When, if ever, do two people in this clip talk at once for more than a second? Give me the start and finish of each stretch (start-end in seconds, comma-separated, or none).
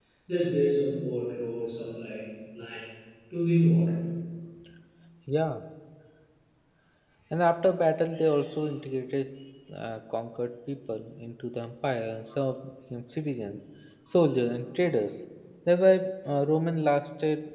none